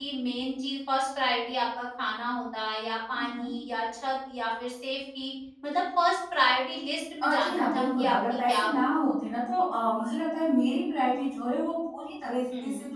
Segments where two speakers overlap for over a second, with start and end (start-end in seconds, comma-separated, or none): 7.2-8.8